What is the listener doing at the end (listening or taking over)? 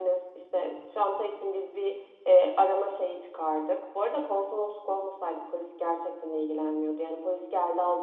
taking over